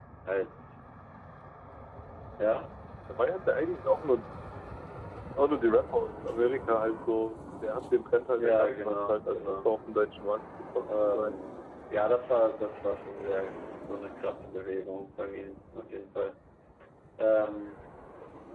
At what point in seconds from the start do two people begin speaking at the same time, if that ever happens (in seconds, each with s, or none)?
8.4 s